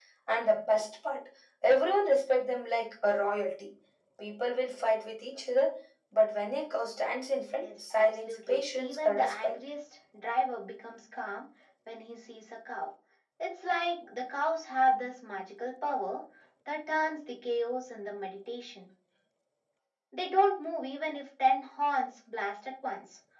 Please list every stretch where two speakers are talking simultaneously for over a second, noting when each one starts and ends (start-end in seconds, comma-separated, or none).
7.6-9.5